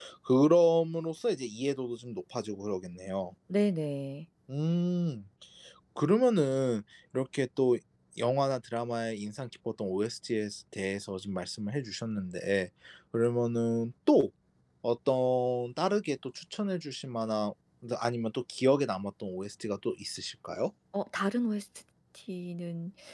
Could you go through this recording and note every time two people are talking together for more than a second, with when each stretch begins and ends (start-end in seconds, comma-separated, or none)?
none